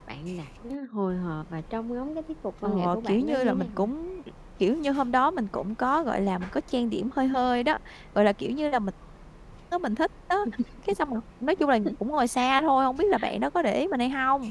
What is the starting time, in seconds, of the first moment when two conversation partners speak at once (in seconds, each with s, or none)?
2.6 s